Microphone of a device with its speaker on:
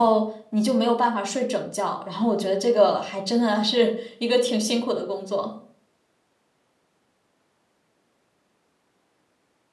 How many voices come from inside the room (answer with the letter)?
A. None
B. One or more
B